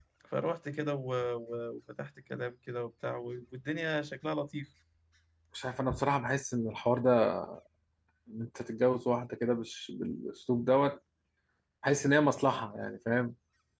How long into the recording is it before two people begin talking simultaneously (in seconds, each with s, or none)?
none